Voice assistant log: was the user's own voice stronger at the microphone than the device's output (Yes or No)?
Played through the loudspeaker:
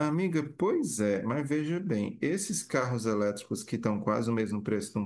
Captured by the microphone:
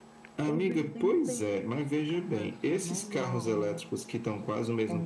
No